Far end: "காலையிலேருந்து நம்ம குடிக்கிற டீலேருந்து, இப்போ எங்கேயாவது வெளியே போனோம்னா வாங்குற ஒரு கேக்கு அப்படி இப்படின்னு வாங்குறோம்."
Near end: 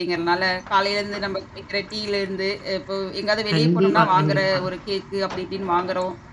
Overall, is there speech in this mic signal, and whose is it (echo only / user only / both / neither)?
both